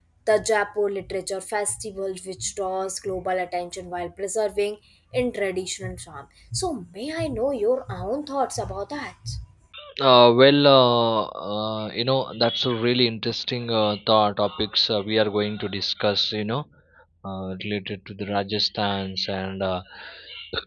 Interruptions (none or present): none